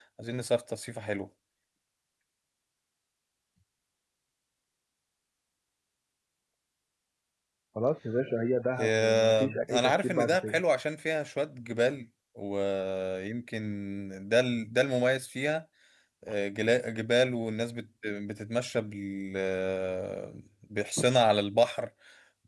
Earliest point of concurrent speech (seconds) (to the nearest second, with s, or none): 9 s